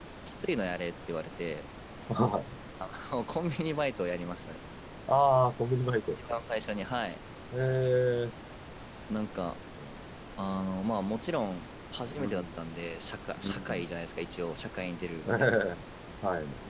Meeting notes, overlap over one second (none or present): none